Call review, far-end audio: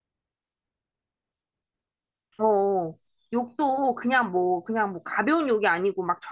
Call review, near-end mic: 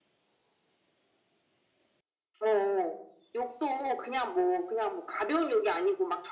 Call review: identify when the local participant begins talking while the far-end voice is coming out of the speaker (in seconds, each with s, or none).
none